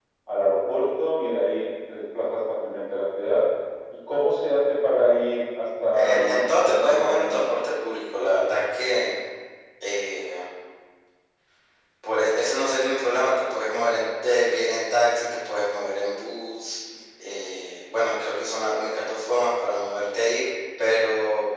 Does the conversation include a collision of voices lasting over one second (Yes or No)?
Yes